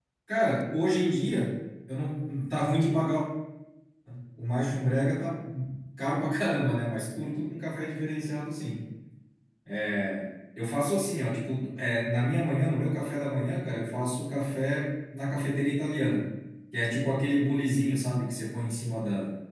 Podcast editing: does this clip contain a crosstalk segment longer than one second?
No

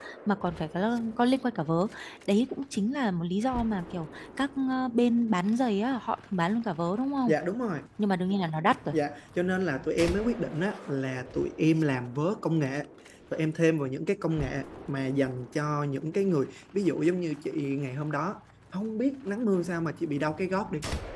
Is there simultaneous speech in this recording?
No

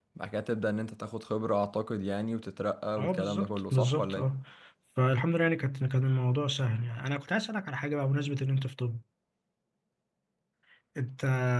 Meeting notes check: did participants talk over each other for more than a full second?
Yes, from 3.0 s

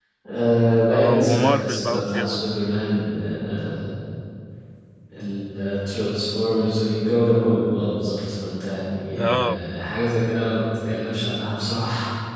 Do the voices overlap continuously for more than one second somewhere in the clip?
Yes, from 0.9 s

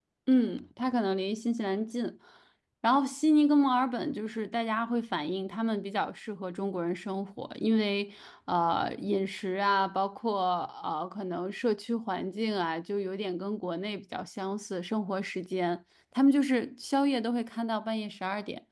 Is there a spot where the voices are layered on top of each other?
No

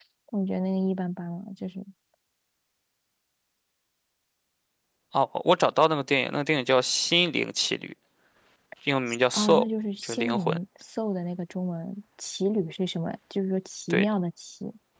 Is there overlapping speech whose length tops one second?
No

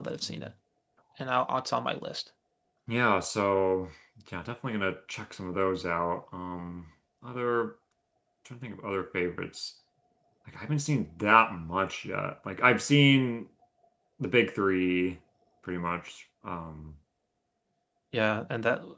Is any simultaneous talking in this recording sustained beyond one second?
No

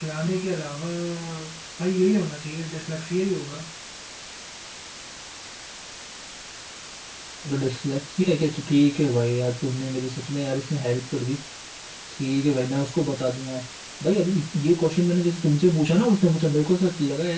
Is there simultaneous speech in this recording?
No

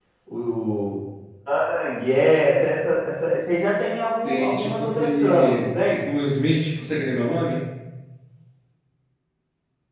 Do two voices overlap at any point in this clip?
Yes, from 4.2 s

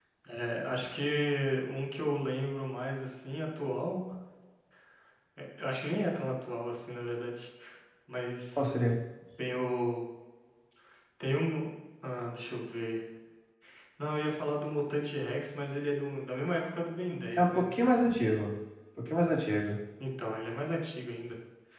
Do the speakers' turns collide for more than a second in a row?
No

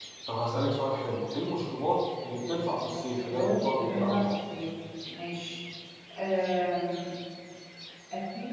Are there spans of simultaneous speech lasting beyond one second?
Yes, from 2.8 s

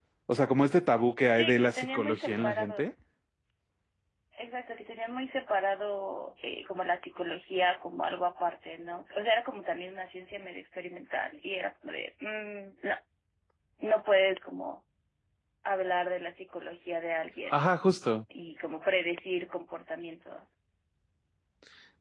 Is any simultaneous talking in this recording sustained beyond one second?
Yes, from 1.3 s

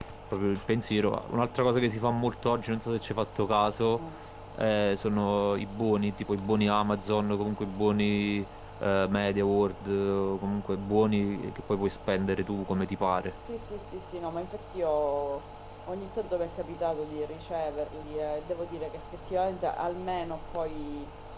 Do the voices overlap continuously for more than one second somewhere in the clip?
No

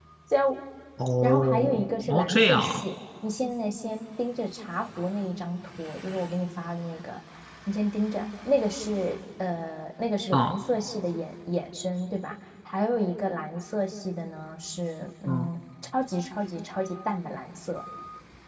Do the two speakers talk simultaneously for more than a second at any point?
Yes, from 1.2 s

